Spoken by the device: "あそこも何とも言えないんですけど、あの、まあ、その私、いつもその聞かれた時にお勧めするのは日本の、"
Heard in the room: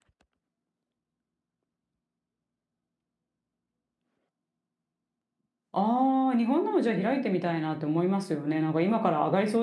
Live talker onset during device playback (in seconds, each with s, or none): 5.7 s